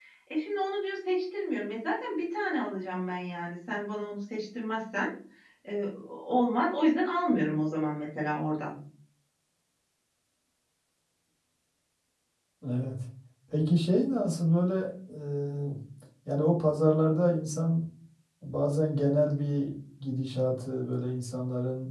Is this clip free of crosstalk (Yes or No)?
Yes